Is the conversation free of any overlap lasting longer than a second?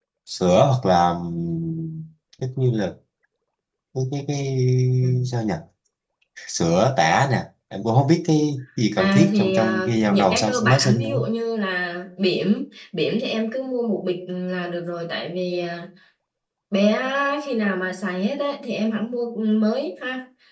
No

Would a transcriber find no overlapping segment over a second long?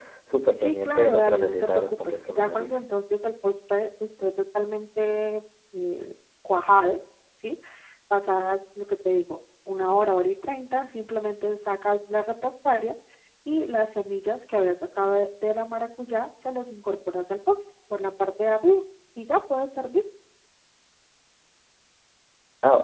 No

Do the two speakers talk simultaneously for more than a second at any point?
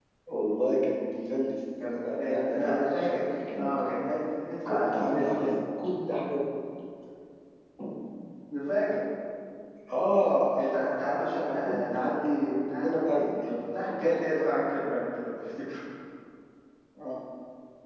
Yes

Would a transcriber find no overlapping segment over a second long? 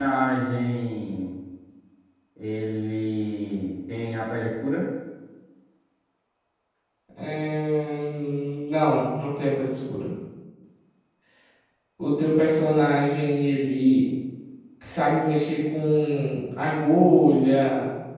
Yes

